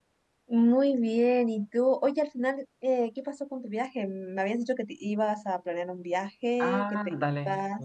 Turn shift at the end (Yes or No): Yes